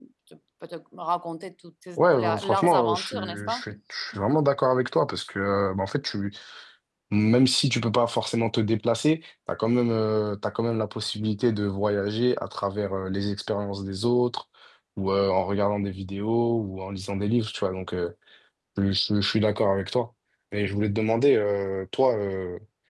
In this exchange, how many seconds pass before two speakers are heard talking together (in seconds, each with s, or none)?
2.2 s